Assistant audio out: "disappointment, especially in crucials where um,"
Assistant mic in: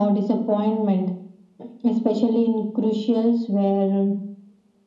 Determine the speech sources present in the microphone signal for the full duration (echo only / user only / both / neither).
echo only